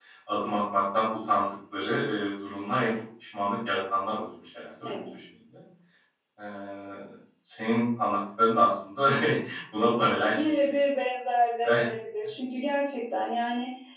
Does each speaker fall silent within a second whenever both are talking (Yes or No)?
Yes